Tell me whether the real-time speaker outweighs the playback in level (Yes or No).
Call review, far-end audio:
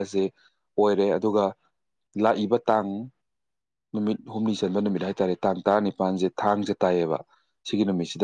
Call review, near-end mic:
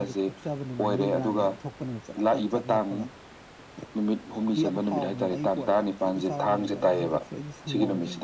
No